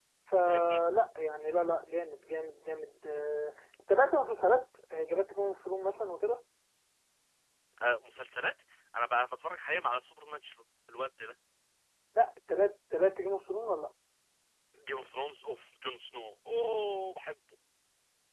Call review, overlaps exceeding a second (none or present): none